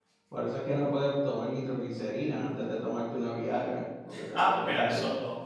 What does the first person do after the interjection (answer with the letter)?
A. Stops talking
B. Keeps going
A